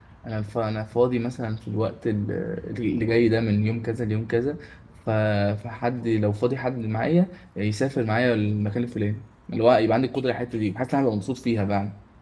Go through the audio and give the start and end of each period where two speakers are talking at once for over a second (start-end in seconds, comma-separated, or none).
none